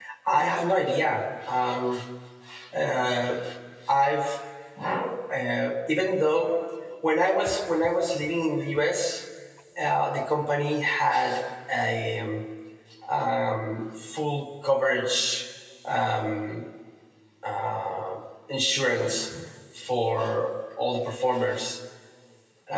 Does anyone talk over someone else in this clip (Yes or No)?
No